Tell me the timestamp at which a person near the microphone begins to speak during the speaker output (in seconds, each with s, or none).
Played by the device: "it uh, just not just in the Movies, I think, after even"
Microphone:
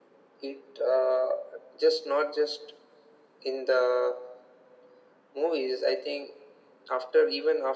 none